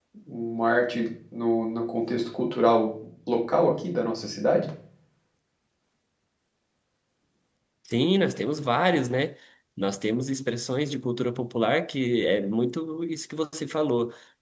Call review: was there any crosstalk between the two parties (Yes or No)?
No